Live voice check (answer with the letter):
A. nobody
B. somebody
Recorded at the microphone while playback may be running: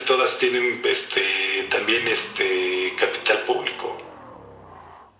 A